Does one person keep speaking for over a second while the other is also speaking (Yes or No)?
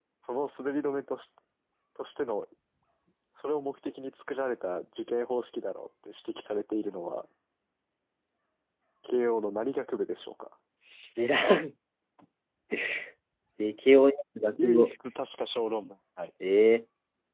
No